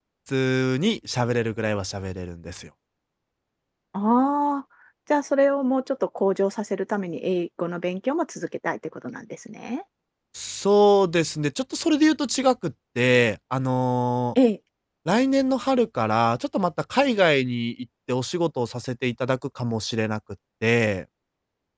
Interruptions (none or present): none